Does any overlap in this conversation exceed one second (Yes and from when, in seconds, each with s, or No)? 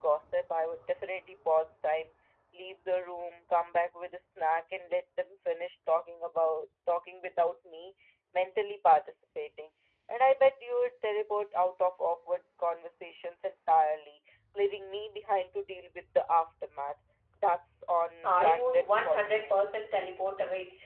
Yes, from 18.2 s